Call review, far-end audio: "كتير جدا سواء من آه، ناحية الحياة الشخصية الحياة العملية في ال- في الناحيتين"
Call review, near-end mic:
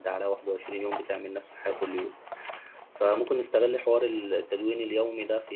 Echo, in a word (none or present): none